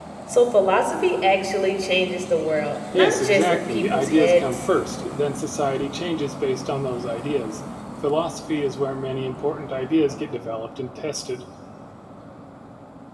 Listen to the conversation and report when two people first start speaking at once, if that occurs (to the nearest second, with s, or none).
3 s